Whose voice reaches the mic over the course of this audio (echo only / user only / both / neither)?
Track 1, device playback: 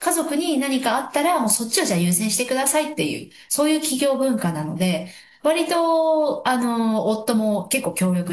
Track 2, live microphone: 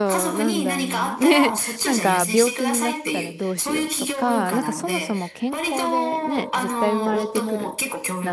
both